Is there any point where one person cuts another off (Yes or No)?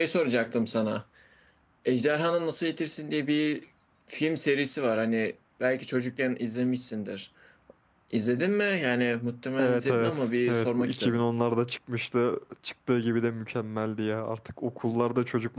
Yes